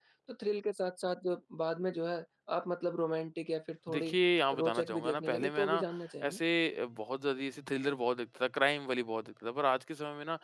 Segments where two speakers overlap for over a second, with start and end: 4.6-5.8

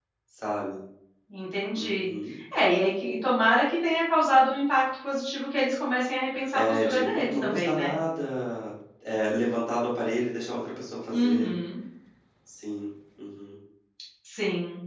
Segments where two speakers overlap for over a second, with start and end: 6.5-7.9

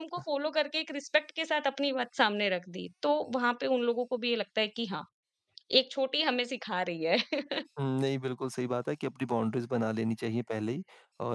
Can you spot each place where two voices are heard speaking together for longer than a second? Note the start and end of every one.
none

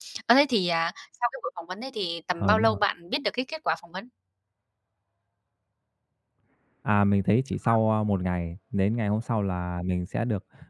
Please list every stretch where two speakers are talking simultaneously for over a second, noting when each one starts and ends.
none

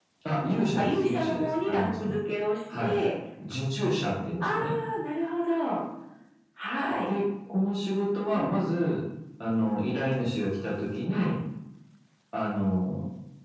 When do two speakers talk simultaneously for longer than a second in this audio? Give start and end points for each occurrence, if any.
0.8-2.2

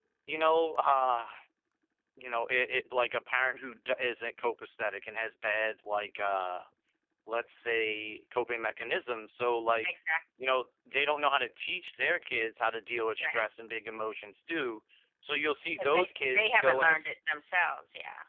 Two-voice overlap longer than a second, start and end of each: 15.8-17.1

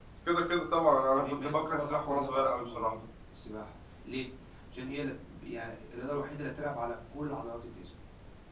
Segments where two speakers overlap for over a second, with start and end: 1.1-2.9

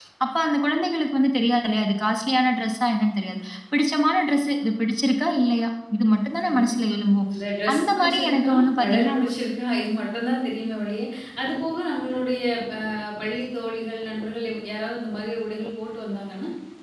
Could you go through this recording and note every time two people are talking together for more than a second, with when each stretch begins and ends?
7.7-9.2

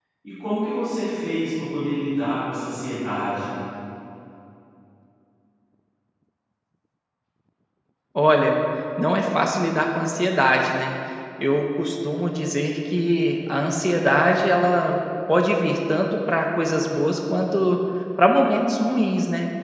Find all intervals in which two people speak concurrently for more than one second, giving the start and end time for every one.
none

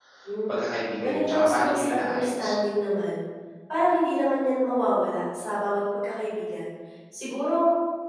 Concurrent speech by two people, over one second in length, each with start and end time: 1.0-2.5

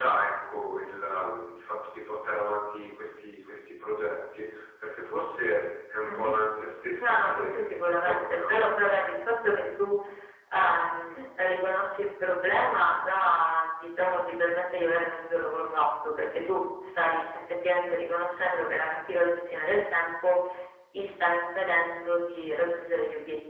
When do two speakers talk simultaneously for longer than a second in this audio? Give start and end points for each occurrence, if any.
7.0-8.5

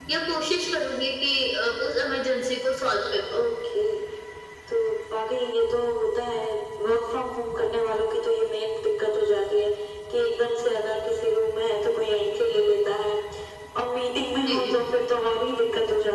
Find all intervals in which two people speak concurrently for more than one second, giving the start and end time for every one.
none

